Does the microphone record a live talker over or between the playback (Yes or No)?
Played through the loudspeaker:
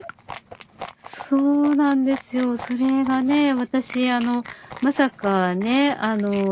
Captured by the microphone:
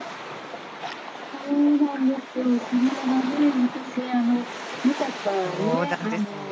Yes